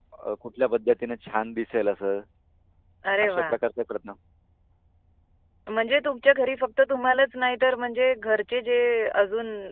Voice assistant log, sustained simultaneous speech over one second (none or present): none